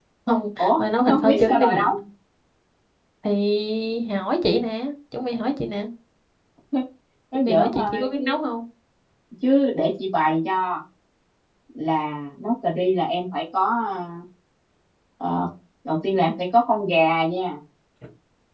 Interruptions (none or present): present